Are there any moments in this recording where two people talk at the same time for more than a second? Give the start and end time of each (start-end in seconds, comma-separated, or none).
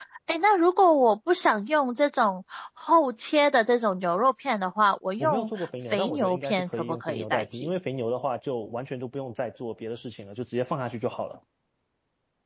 5.2-7.7